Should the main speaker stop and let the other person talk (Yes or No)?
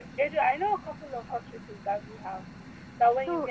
No